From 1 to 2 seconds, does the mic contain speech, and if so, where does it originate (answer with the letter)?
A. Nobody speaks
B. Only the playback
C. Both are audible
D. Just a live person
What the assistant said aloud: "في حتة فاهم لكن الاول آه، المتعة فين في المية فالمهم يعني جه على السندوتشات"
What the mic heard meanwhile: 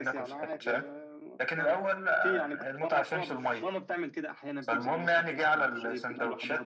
C